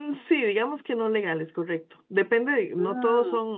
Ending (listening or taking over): listening